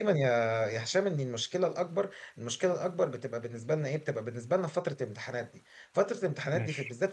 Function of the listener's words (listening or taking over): listening